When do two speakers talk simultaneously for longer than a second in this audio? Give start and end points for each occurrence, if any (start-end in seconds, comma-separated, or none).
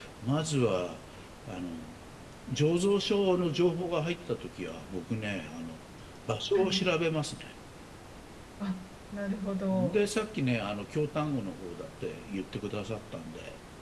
none